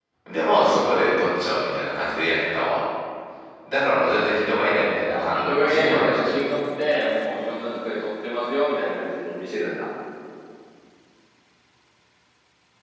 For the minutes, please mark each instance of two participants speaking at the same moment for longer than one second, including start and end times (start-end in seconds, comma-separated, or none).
5.1-6.4